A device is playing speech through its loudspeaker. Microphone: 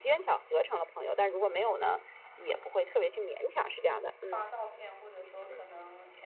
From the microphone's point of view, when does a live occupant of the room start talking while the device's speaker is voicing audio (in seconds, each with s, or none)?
4.2 s